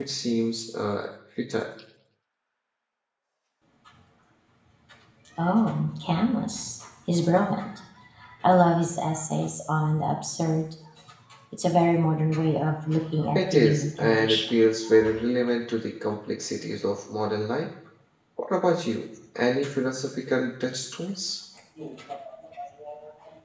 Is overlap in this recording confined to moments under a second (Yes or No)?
No